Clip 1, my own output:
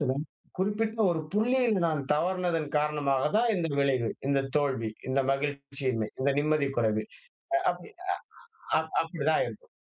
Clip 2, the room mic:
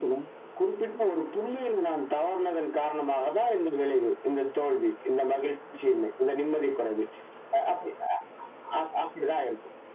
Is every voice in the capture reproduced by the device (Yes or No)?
Yes